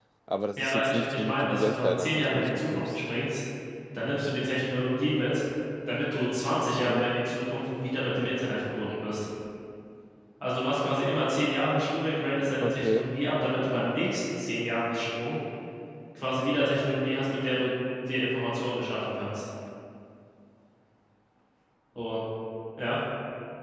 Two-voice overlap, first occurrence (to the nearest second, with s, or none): 1 s